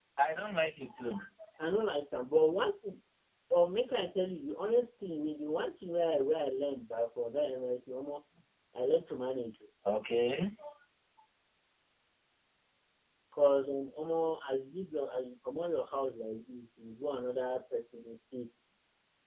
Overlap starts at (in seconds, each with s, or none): none